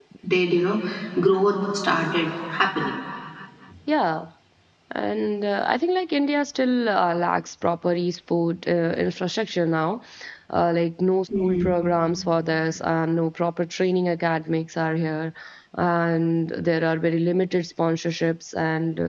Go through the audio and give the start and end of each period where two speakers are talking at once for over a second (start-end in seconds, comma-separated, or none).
none